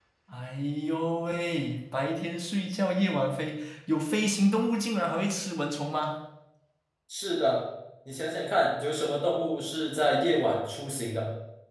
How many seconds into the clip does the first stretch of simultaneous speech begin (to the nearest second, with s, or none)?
none